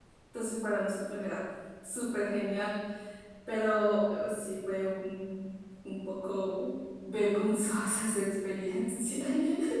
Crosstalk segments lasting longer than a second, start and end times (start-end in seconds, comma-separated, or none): none